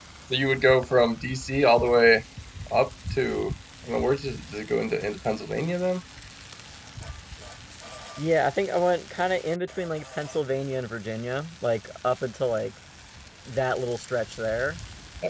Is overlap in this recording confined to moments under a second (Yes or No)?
Yes